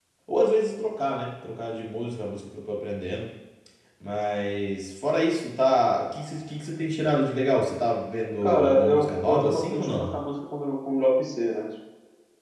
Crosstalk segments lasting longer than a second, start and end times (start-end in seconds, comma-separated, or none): 8.4-9.9